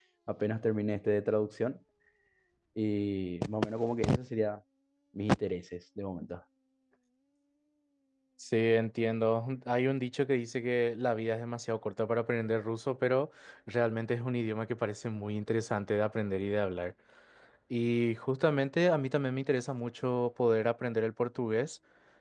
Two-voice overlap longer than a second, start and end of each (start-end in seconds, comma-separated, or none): none